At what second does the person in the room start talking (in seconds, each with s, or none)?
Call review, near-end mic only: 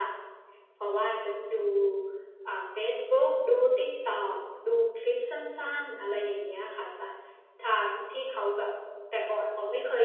none